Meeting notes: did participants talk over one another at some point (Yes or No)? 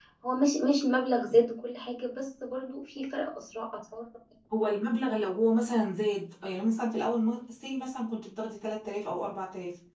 No